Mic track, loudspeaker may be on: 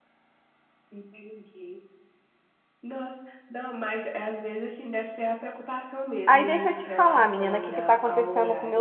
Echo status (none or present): present